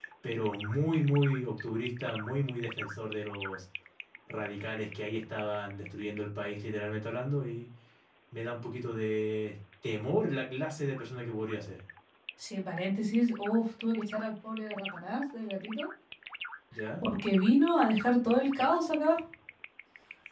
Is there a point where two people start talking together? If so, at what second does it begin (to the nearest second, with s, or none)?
none